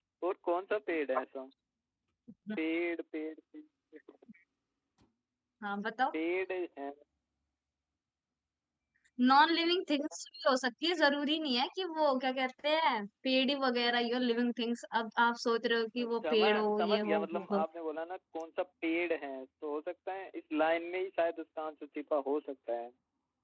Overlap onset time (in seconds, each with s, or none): 16.0 s